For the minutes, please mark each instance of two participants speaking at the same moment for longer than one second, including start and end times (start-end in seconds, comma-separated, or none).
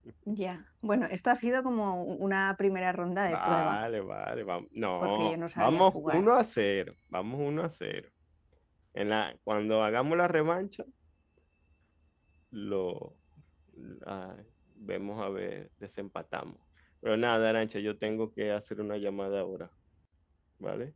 5.0-6.2